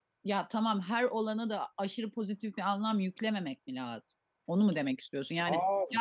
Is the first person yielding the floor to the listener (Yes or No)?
No